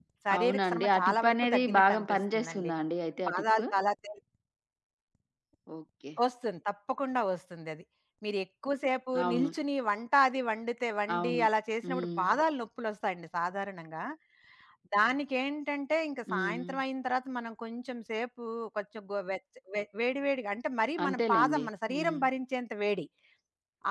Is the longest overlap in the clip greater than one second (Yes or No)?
Yes